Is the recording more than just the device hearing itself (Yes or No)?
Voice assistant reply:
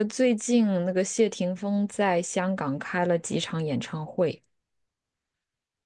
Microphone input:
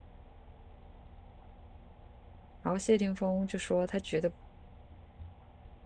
Yes